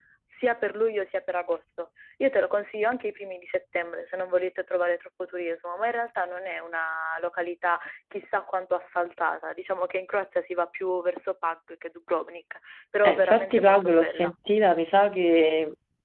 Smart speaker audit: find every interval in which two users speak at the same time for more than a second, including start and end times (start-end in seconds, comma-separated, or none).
13.0-14.3